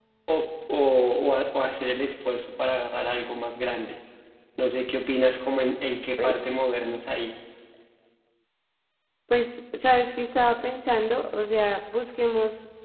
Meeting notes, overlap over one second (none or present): none